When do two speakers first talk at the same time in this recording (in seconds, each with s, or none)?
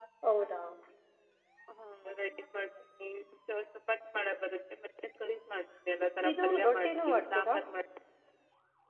6.2 s